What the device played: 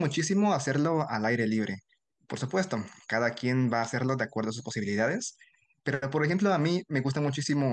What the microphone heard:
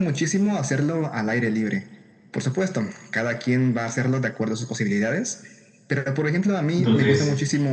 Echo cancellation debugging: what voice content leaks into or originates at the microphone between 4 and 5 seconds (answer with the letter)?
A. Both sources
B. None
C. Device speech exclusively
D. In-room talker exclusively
C